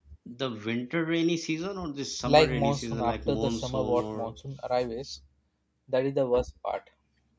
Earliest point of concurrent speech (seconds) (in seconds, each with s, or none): 2.2 s